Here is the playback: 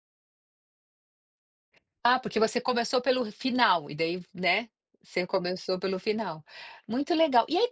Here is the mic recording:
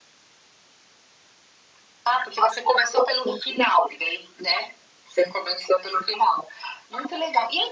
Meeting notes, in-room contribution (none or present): none